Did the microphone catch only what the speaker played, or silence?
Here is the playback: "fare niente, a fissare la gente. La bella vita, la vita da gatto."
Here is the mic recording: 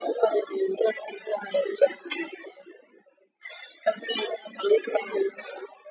Yes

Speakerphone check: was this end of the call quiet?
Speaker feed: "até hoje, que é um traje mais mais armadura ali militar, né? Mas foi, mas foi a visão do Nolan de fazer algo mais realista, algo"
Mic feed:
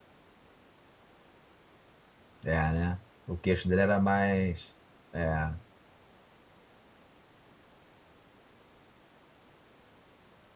No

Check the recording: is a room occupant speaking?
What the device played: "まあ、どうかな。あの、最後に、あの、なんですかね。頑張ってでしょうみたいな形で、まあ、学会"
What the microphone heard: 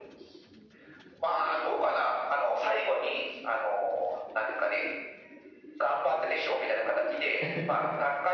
Yes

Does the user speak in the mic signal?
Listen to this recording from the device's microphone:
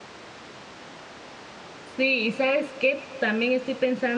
Yes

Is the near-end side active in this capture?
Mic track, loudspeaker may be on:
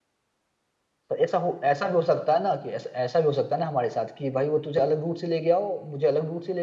Yes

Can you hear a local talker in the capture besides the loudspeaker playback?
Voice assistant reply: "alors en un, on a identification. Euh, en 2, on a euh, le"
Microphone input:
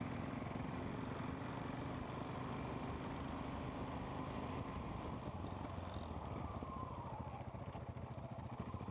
No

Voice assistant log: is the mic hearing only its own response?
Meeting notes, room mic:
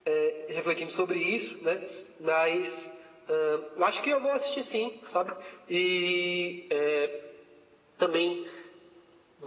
Yes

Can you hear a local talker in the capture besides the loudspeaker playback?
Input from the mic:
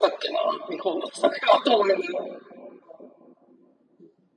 No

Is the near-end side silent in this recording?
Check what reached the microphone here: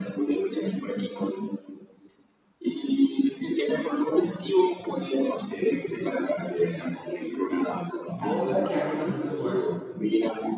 No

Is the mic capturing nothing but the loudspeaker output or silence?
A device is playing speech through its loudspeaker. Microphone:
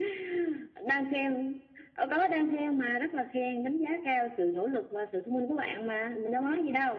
Yes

